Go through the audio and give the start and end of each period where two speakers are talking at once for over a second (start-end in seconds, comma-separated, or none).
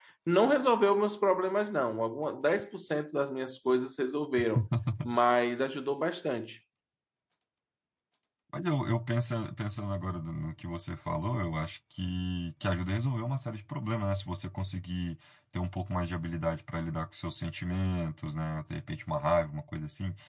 none